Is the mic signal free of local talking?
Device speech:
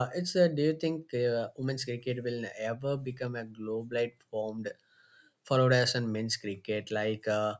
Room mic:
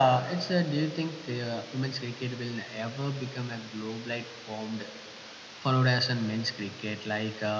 Yes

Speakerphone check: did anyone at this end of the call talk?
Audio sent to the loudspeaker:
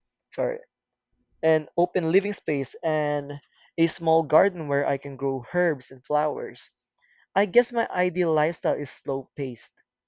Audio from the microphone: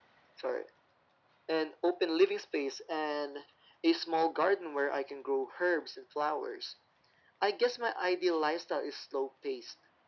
No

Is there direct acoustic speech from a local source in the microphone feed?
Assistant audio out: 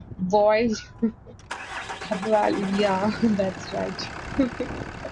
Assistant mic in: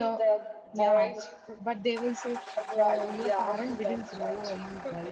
Yes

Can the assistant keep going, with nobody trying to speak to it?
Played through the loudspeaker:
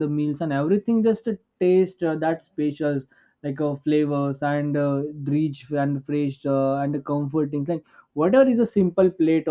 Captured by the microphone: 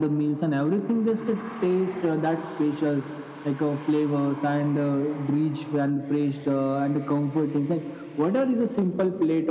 Yes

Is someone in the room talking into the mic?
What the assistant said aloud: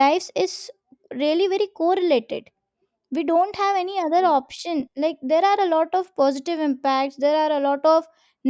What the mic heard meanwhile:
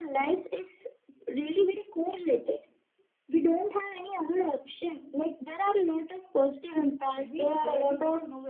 Yes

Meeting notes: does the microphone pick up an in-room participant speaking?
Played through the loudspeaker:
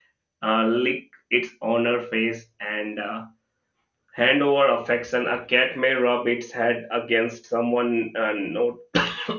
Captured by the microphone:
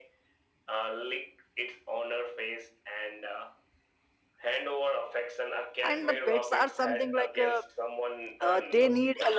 Yes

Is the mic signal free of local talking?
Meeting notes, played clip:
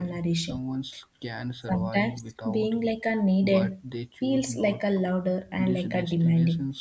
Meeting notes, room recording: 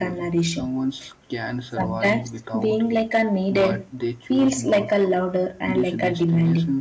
Yes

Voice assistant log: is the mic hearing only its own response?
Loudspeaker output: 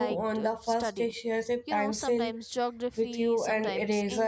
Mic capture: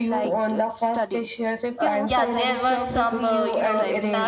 No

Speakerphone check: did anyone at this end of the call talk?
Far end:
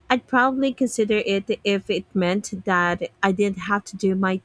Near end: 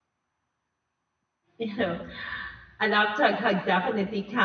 Yes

